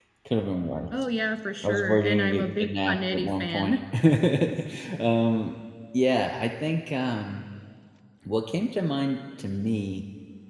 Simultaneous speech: Yes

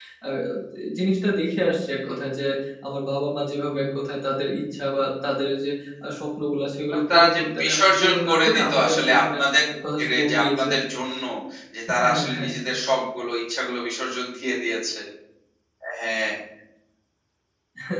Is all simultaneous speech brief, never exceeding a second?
No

